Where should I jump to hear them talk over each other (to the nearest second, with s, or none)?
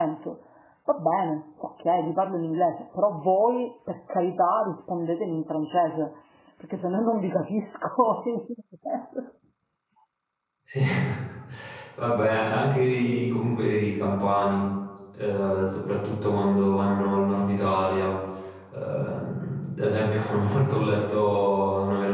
none